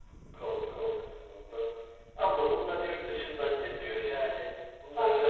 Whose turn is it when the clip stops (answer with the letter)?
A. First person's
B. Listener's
A